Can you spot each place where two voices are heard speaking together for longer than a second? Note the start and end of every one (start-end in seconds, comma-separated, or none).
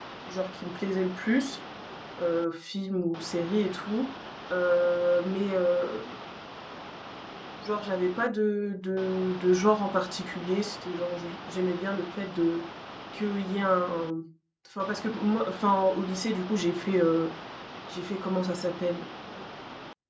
none